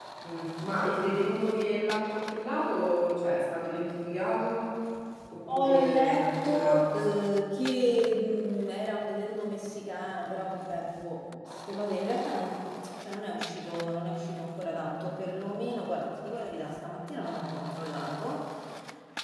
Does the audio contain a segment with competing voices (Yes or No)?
Yes